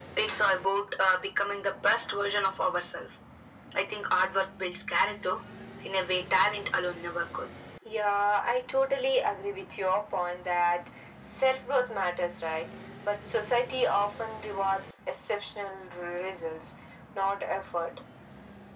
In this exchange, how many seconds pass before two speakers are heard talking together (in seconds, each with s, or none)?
none